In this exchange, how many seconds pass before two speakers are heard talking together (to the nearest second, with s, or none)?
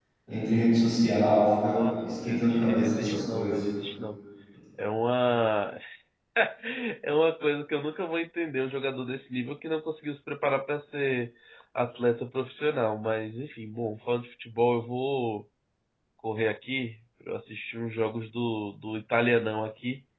2 s